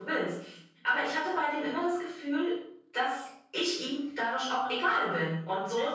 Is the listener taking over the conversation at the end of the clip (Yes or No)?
Yes